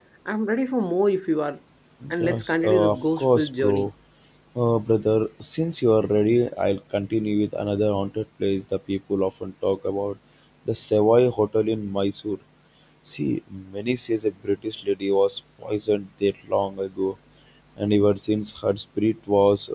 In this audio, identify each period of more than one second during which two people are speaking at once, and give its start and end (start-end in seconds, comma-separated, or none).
2.2-3.9